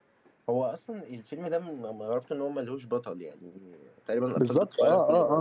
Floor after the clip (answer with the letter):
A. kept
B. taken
B